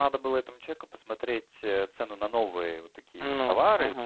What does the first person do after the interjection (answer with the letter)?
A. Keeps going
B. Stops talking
A